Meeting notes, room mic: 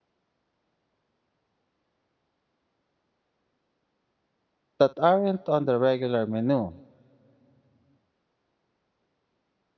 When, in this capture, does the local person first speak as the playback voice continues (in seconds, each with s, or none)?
4.8 s